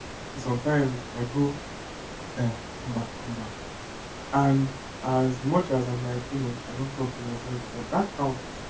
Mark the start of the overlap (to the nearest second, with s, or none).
none